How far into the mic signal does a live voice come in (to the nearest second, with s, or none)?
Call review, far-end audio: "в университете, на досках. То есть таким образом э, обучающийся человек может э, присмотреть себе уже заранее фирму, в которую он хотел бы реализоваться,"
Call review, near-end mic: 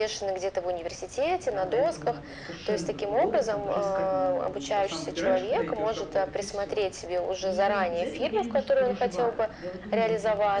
1 s